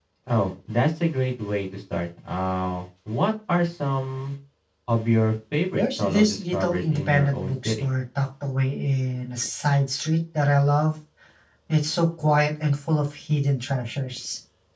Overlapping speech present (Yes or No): Yes